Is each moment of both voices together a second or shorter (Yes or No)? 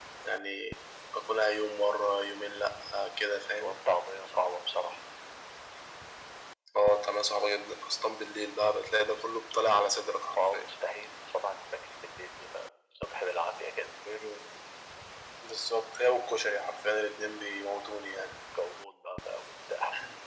Yes